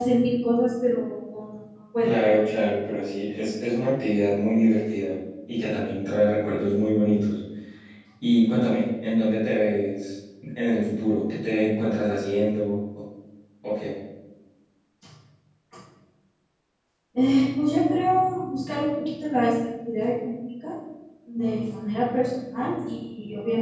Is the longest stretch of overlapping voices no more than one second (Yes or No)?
Yes